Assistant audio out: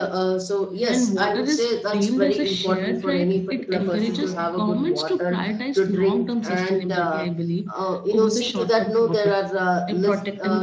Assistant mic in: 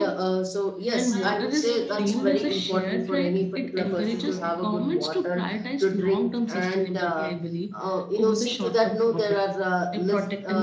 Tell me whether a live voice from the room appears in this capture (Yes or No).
Yes